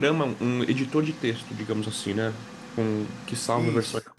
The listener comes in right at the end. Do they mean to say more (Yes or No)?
No